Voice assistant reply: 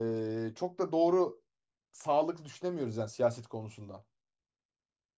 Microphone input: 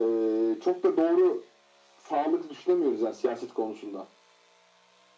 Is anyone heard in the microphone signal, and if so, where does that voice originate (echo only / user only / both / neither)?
echo only